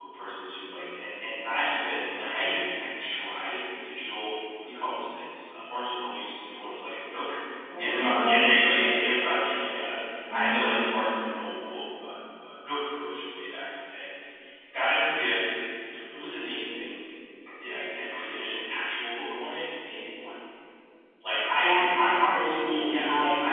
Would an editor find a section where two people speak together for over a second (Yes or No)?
Yes